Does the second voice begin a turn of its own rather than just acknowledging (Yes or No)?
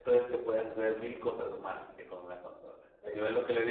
No